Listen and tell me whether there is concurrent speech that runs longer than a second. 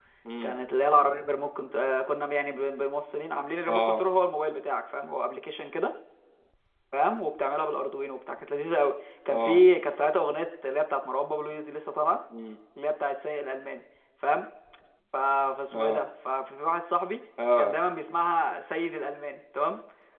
No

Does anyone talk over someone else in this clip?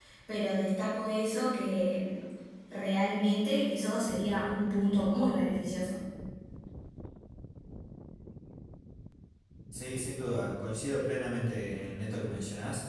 No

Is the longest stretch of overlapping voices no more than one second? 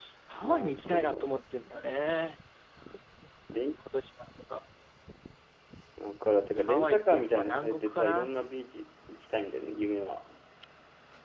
No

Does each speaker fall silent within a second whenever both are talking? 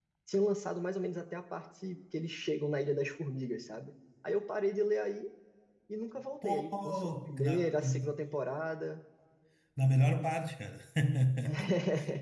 No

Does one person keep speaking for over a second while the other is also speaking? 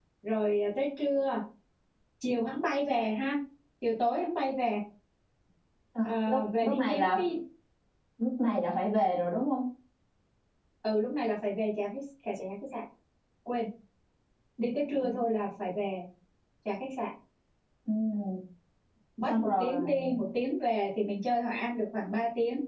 Yes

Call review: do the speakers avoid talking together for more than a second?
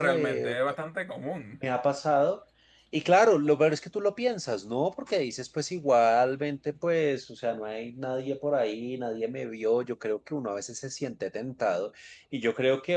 Yes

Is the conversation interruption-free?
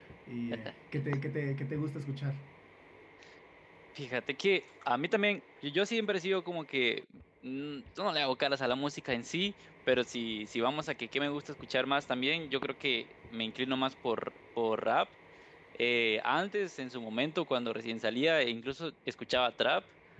Yes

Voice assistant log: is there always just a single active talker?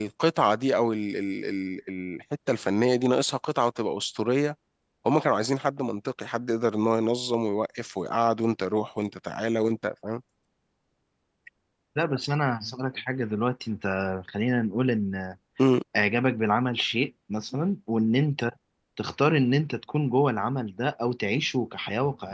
Yes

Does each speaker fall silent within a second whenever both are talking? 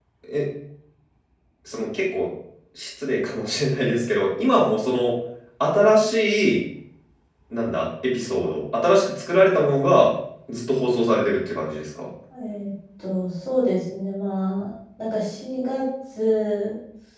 Yes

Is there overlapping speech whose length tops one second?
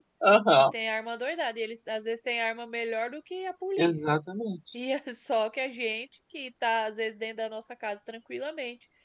No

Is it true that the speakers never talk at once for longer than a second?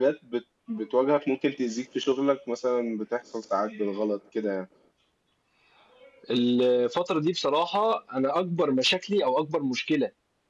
Yes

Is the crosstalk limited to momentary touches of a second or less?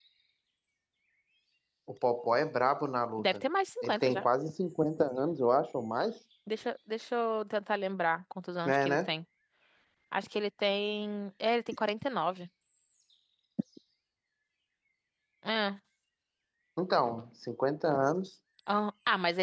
Yes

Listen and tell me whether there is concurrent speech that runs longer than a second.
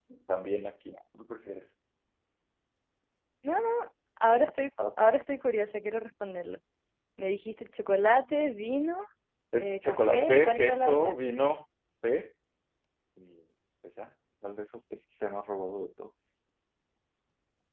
Yes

